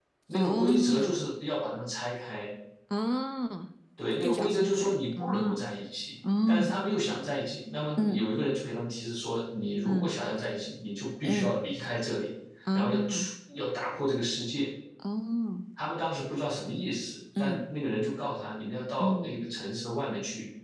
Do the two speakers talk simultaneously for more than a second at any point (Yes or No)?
Yes